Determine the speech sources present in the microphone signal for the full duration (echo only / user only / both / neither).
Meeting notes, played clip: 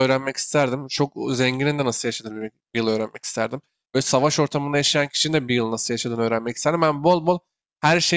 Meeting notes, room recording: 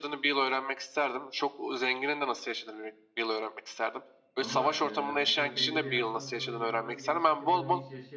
both